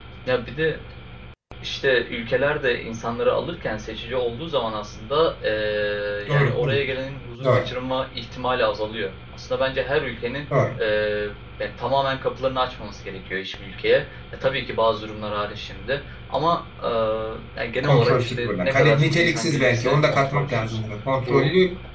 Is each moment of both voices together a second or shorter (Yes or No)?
No